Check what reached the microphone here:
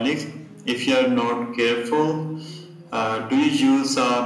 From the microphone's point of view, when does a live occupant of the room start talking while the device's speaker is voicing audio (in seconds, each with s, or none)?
none